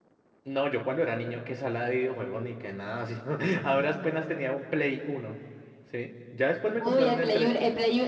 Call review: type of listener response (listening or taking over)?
taking over